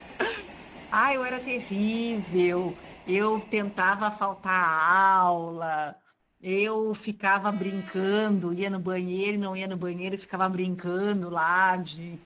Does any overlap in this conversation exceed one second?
No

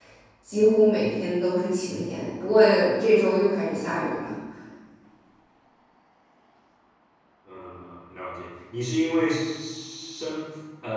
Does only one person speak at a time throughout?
Yes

